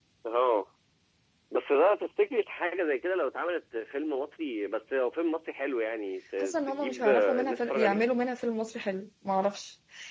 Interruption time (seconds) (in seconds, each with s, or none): 6.4 s